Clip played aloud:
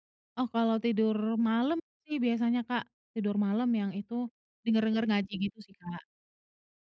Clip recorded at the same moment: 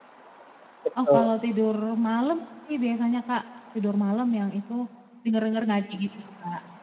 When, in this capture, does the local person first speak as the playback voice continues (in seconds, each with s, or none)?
0.8 s